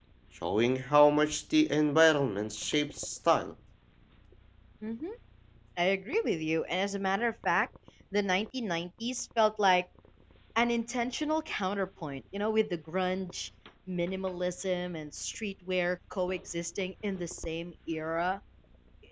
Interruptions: none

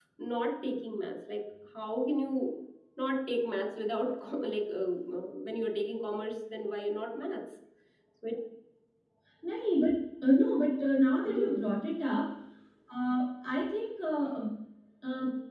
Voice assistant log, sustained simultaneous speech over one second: none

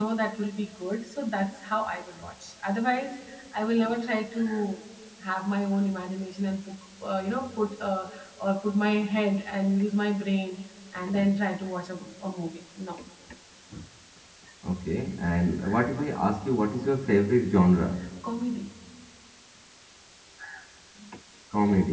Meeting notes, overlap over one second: none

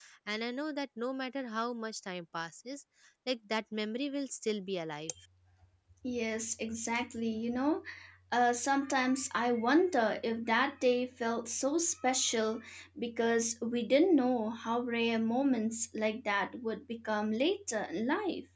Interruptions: none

